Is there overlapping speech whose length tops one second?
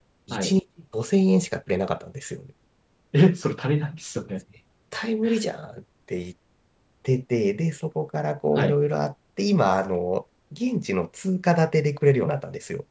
No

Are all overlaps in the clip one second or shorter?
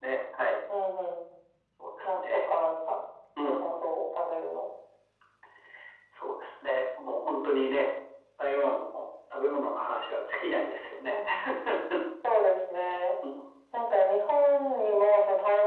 Yes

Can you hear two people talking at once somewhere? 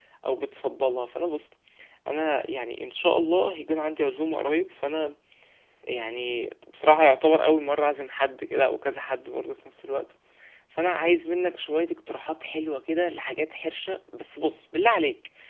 No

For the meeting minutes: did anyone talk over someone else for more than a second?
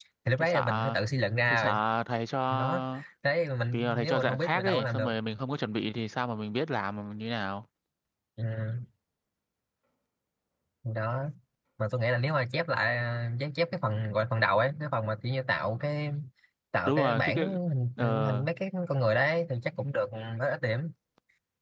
Yes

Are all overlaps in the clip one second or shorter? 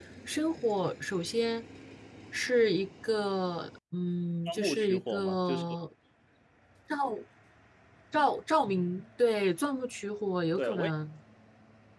No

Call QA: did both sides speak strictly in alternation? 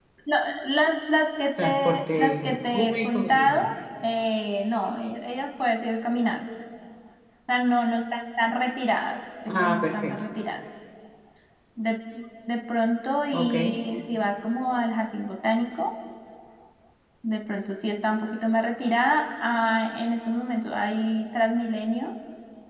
No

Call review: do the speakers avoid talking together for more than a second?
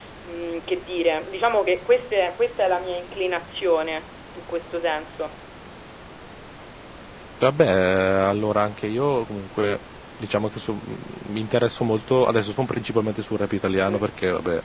Yes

